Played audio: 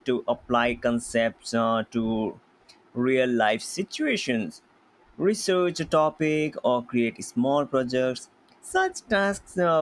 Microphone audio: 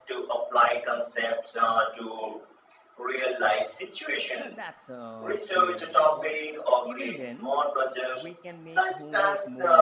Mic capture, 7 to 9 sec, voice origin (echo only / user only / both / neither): both